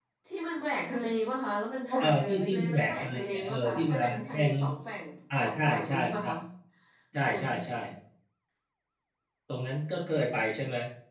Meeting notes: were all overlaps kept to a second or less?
No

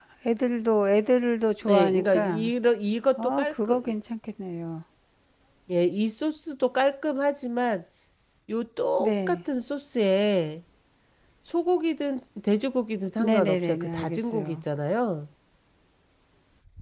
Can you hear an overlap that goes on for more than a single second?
Yes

